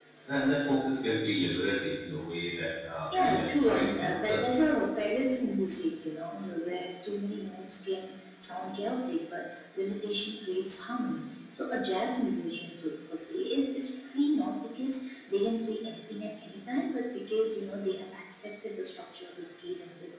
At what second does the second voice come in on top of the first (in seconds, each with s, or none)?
3.1 s